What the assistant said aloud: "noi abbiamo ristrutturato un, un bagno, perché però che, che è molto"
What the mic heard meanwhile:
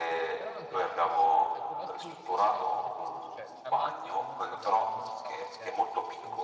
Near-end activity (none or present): present